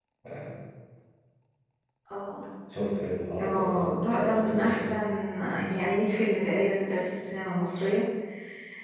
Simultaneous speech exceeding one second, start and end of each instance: 3.4-4.9

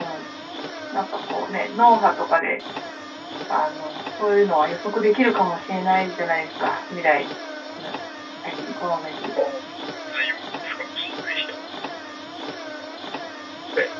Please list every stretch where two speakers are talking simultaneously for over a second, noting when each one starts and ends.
none

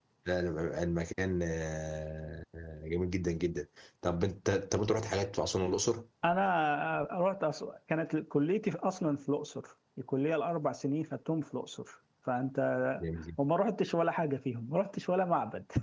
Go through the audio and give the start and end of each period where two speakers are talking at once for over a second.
none

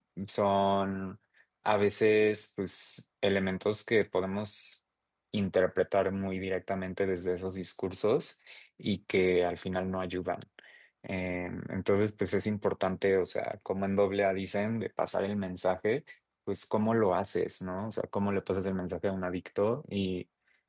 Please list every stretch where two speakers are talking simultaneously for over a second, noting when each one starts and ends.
none

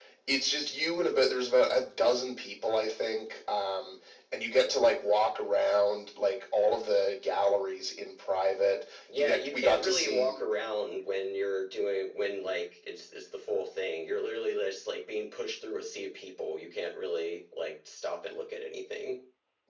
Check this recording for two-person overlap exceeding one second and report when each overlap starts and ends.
9.2-10.4

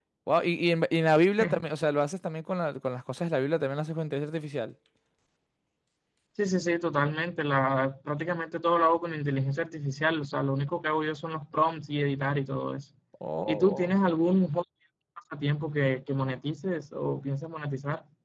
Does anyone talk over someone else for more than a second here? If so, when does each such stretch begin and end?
none

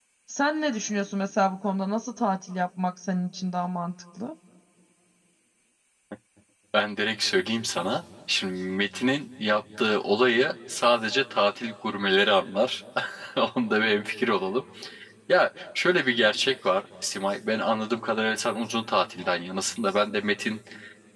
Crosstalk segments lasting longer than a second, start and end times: none

